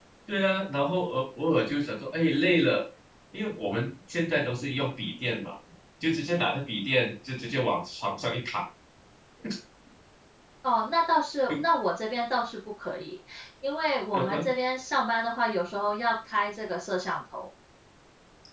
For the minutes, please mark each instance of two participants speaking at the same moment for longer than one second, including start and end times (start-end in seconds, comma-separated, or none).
none